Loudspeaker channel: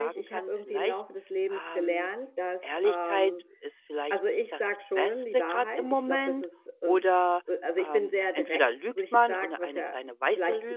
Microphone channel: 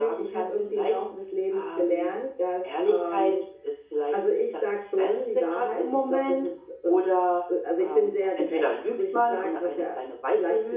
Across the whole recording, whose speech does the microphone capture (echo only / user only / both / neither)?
echo only